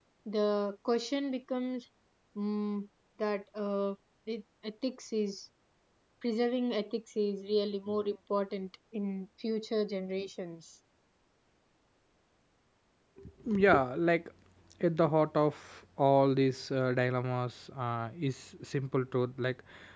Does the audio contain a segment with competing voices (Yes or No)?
No